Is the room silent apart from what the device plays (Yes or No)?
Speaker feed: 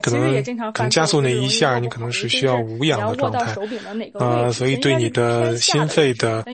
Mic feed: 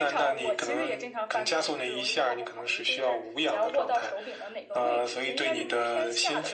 Yes